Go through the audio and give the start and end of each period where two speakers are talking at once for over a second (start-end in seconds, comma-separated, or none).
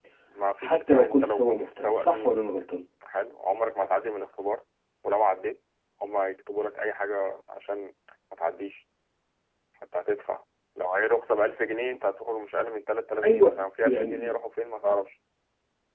0.6-2.4